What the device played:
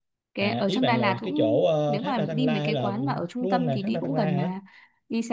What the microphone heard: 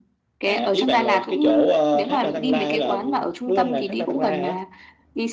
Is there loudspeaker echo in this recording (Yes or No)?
Yes